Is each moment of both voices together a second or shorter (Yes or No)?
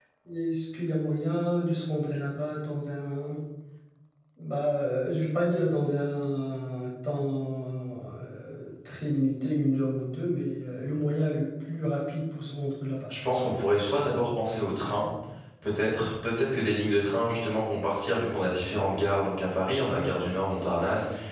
Yes